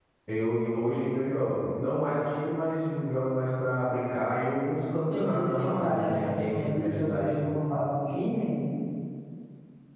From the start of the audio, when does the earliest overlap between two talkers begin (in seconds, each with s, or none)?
5.1 s